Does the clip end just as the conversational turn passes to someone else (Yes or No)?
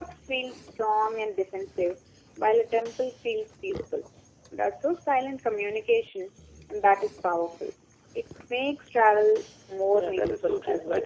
Yes